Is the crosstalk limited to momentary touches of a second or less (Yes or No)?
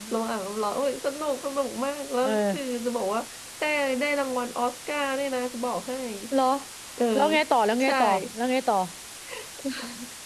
Yes